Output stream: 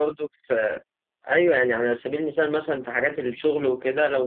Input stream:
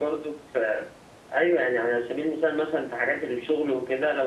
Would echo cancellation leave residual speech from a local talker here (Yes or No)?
No